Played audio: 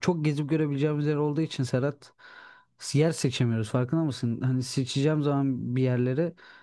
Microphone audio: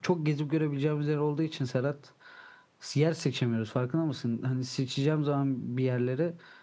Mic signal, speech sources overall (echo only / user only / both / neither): echo only